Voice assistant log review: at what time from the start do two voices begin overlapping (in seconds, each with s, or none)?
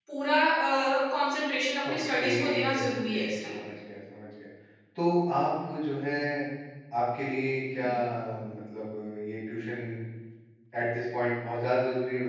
1.8 s